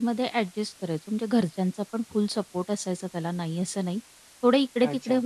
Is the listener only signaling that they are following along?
Yes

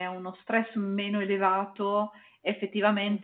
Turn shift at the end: No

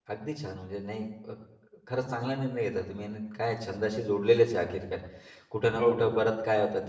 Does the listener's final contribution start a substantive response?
No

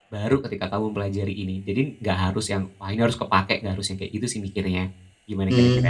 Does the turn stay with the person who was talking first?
No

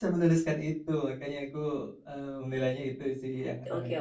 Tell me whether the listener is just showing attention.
No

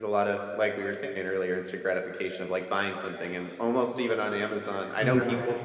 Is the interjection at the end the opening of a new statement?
No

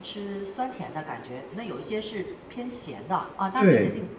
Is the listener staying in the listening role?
No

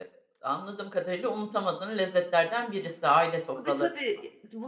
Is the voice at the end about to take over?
Yes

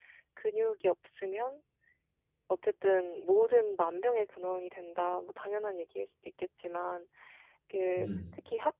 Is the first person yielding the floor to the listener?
No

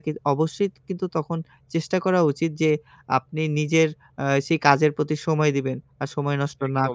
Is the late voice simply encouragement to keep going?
No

